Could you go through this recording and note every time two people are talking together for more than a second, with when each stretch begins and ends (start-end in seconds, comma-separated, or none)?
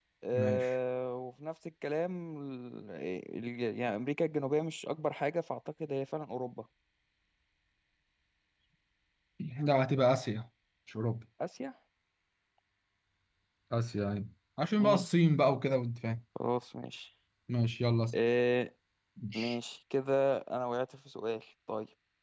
none